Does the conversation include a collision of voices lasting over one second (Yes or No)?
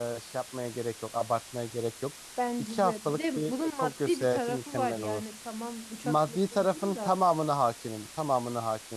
Yes